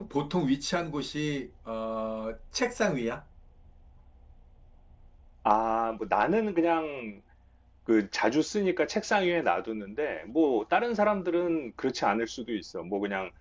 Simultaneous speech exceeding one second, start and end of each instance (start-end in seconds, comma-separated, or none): none